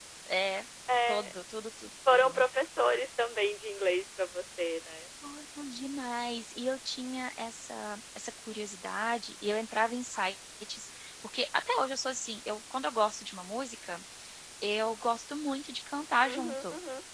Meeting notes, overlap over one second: none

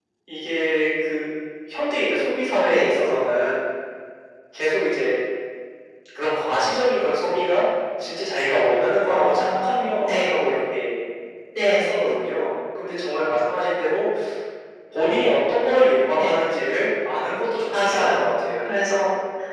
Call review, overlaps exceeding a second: present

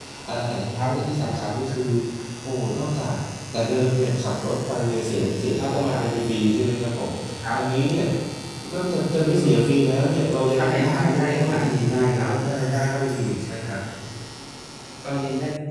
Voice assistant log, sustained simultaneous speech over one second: present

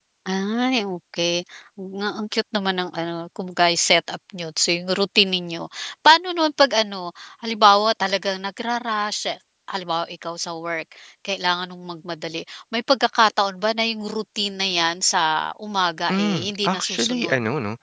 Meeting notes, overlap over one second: present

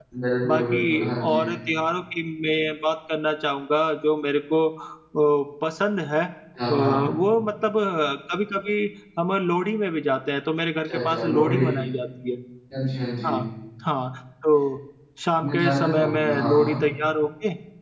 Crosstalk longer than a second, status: present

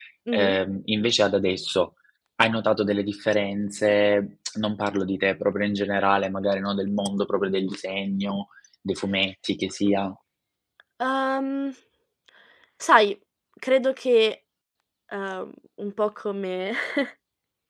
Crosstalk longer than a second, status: none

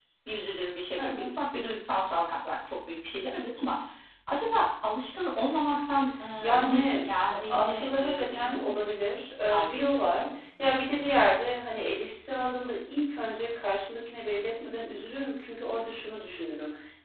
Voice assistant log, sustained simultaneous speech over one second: present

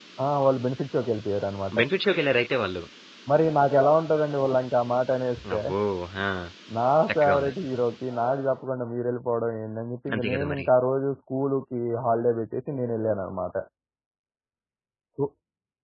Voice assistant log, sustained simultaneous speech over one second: none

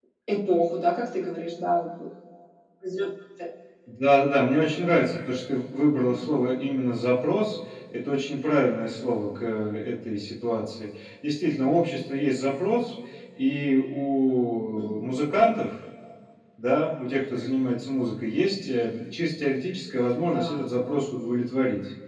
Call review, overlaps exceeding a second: none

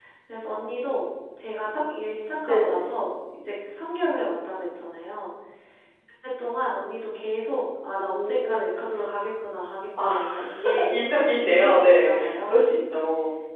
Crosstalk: present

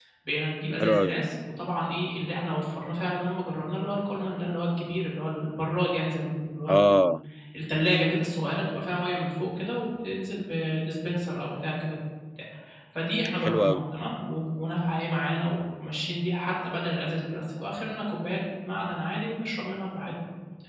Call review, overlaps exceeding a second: none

